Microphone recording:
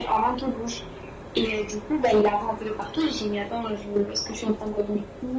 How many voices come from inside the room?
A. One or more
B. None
B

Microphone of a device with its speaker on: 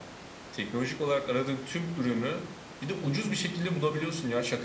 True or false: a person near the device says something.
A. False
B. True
A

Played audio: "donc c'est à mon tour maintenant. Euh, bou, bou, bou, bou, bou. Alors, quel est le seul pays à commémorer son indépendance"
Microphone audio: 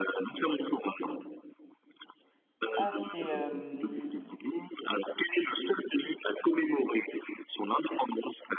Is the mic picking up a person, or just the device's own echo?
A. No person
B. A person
B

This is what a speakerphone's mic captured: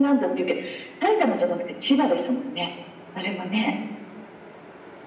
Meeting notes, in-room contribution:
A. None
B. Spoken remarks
A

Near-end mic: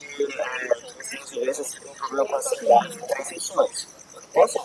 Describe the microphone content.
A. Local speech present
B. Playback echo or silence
A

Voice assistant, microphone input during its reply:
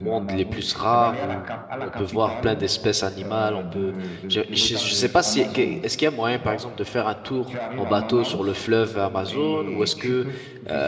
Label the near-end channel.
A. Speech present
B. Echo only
A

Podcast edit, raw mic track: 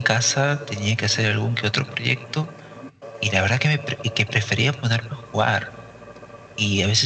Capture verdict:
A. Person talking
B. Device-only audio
B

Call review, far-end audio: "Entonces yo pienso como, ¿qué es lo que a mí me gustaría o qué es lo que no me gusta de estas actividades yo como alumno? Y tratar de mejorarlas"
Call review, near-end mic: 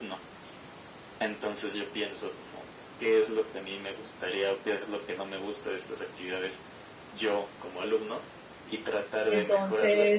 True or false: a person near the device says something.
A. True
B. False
A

